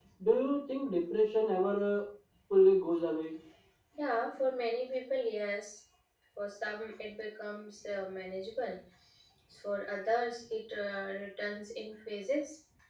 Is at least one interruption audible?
No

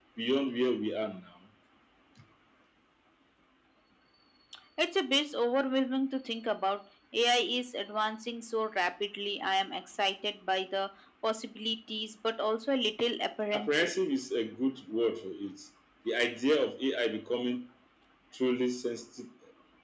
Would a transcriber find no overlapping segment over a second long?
Yes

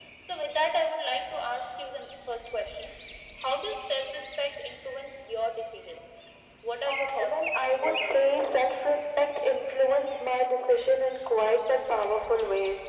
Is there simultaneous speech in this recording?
Yes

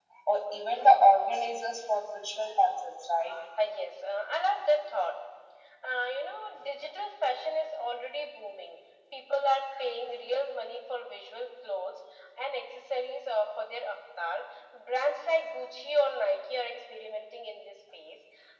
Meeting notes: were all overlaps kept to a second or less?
Yes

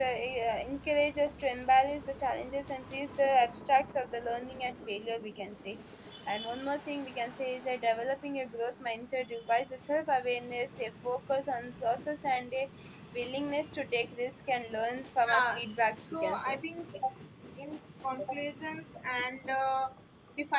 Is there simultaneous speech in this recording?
Yes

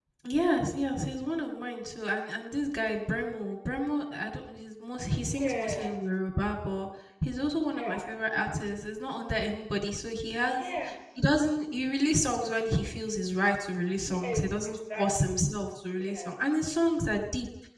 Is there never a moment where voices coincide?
No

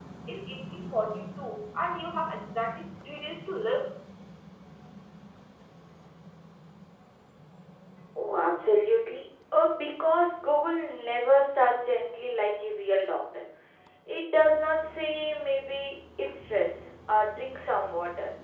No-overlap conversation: Yes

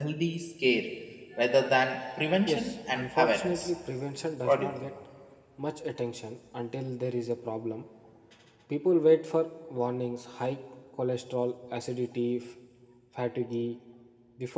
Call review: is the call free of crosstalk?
No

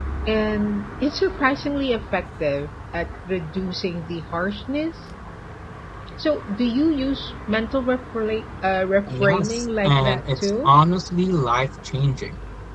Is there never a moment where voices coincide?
No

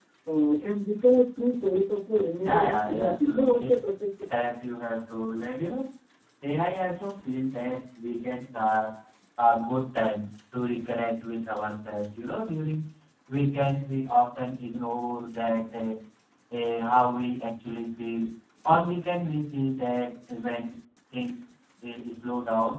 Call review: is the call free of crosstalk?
No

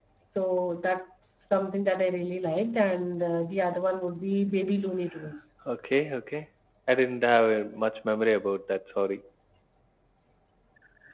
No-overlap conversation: Yes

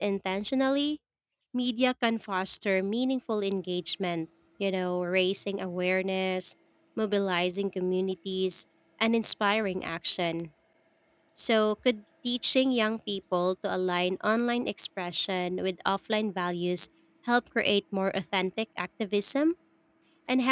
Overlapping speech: No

